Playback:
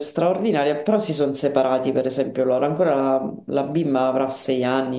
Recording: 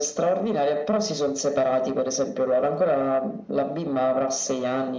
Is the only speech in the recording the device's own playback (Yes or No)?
Yes